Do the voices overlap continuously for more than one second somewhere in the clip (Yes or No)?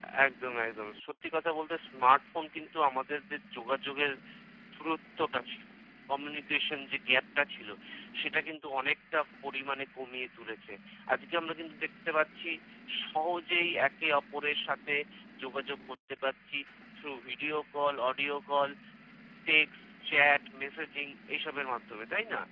No